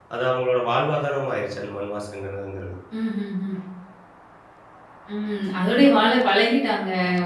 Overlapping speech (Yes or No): No